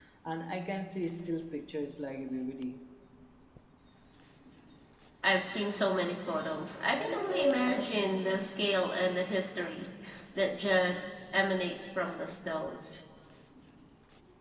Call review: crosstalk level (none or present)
none